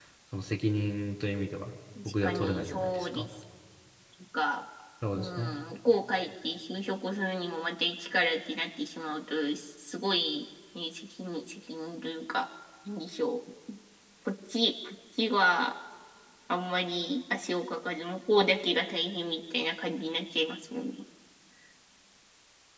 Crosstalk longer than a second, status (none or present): present